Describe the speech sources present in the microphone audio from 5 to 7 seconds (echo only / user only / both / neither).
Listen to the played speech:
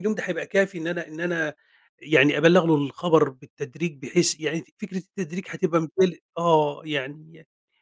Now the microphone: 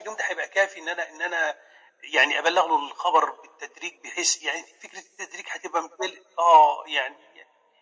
echo only